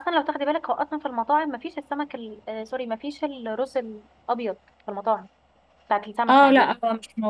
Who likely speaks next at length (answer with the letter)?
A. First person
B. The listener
B